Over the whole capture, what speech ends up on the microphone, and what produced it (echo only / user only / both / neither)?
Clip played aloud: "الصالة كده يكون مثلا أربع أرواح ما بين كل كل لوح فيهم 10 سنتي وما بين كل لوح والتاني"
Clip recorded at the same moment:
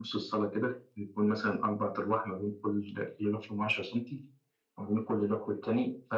echo only